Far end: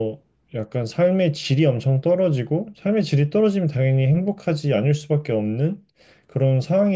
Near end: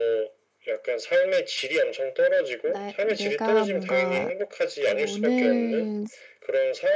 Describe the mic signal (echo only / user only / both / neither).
both